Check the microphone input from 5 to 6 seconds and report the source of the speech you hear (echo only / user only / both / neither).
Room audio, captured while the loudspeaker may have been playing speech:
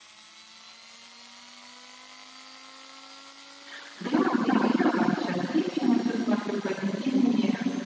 echo only